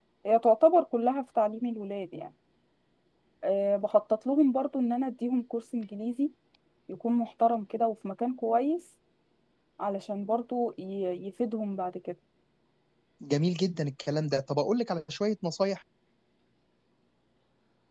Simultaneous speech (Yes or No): No